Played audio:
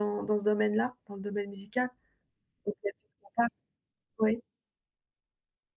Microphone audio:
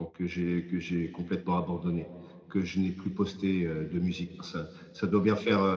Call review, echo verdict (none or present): none